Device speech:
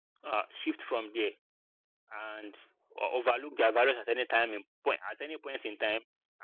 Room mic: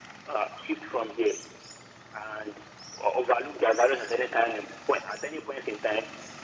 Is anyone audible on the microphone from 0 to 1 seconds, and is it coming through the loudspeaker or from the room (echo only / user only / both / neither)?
echo only